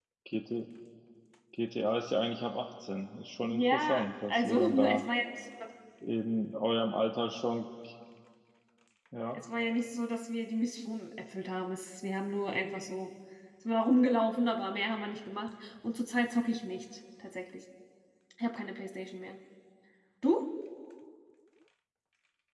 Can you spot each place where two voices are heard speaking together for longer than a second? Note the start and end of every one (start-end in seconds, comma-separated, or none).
3.5-5.0